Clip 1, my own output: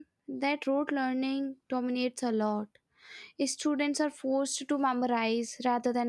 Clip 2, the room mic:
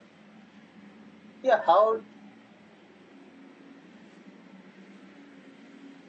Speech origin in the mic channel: user only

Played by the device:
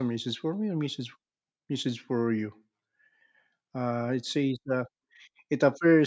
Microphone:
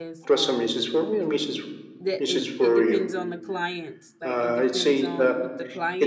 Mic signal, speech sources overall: both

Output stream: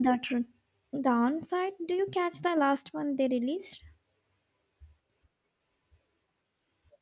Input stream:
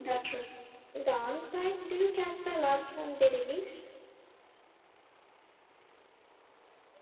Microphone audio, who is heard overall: echo only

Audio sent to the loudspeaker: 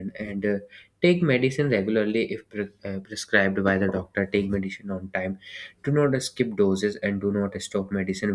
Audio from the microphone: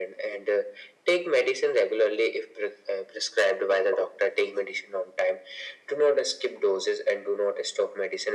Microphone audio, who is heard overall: echo only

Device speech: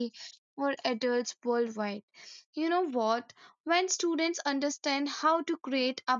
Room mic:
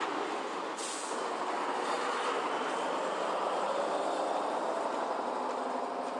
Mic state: neither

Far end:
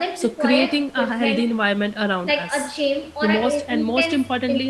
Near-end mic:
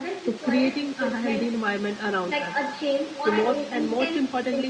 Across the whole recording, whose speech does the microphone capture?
echo only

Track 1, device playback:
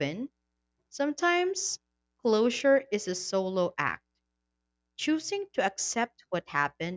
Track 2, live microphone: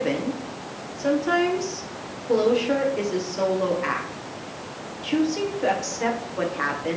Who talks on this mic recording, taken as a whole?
echo only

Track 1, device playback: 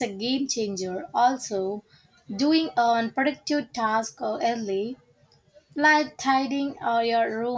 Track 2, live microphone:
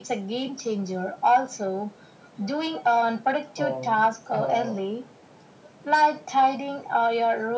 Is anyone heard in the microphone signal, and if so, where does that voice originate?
both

